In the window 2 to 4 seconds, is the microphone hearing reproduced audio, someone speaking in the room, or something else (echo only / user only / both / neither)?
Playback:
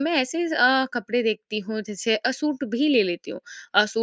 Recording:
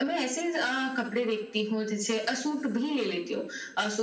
echo only